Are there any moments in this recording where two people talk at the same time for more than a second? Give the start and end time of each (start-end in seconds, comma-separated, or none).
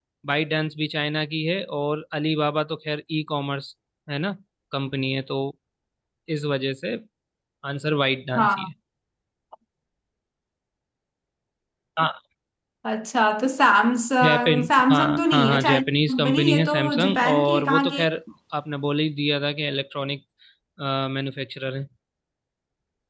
14.2-18.0